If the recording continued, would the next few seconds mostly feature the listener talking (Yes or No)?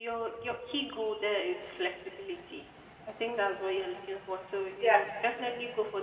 No